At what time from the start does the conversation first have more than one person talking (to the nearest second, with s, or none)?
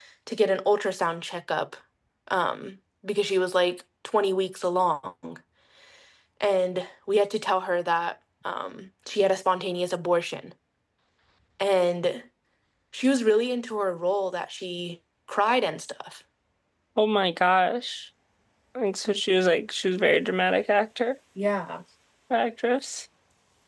none